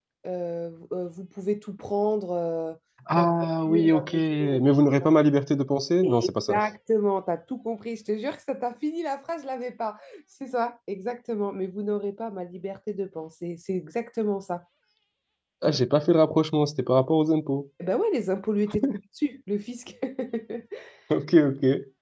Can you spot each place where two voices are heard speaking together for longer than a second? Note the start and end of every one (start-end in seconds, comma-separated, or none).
3.1-4.6